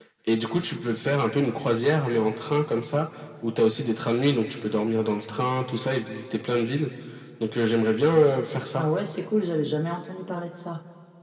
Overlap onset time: none

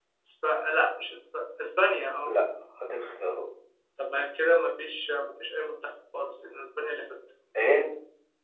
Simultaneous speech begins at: none

